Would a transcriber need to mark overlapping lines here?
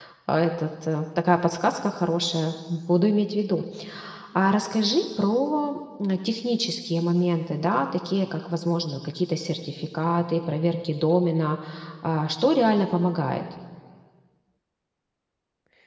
No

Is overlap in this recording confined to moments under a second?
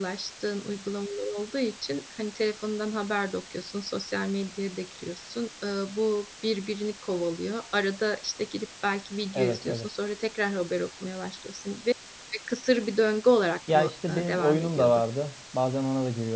No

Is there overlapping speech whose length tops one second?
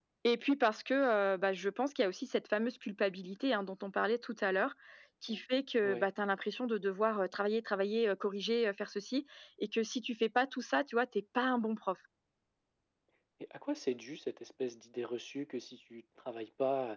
No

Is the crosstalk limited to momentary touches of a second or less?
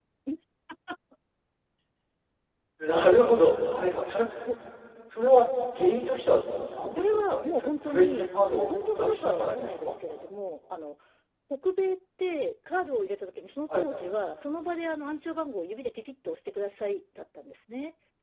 No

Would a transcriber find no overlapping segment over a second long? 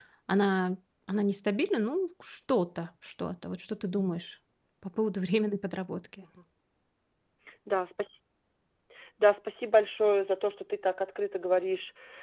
Yes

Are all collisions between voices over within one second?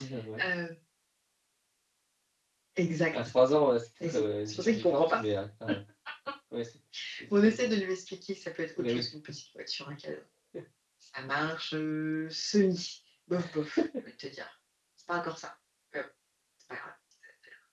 No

